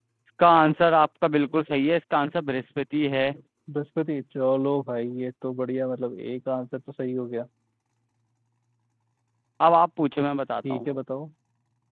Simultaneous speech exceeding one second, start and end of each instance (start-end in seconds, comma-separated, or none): none